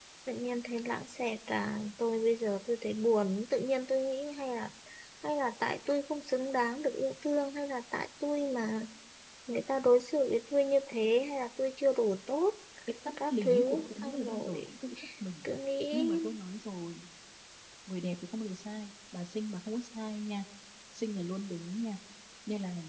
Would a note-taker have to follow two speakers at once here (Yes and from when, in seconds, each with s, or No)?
Yes, from 13.2 s